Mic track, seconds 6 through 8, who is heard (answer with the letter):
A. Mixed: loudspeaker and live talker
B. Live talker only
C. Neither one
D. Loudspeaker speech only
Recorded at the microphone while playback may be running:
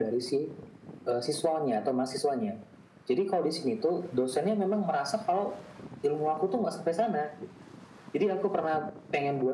D